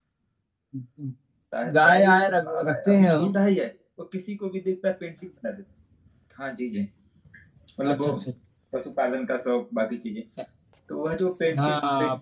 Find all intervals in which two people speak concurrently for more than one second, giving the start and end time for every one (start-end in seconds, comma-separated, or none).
1.9-3.3